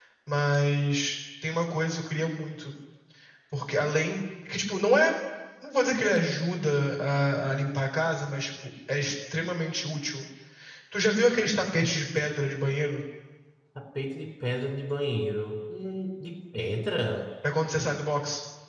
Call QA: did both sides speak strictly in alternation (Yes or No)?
Yes